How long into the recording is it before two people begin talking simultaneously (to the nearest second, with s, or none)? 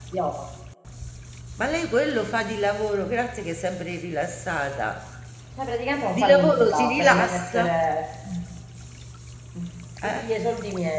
6 s